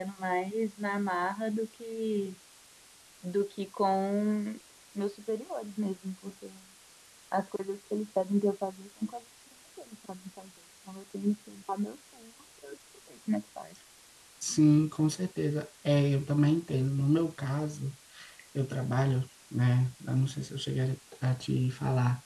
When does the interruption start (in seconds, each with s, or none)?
none